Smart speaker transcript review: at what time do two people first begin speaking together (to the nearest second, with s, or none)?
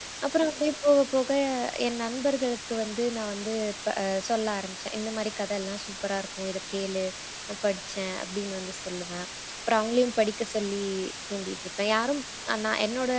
none